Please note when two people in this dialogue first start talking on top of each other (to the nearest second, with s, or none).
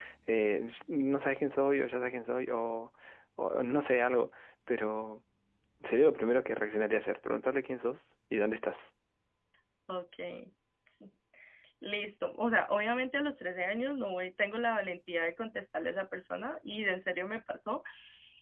none